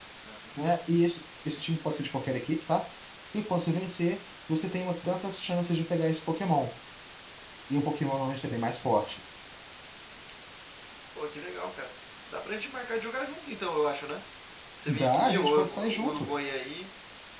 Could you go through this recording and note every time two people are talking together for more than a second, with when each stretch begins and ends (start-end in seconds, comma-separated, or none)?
14.9-16.3